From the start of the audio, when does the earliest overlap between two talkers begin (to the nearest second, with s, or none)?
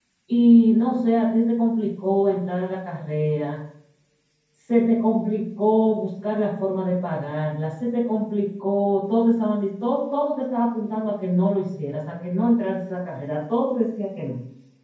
none